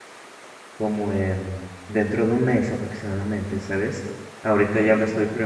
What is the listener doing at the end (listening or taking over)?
listening